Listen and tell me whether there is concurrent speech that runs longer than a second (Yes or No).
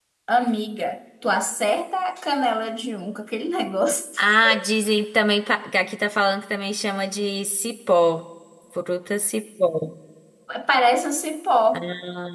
No